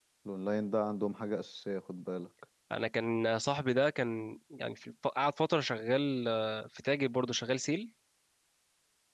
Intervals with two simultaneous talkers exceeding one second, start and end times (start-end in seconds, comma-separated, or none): none